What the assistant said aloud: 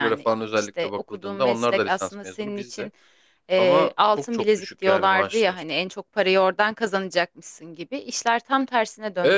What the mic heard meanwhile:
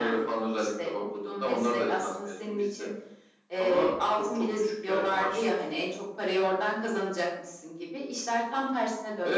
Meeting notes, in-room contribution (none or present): none